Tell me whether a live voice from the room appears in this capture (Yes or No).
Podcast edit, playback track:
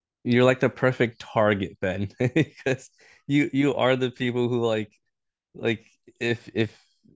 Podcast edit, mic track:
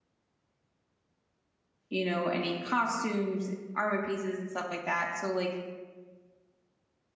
Yes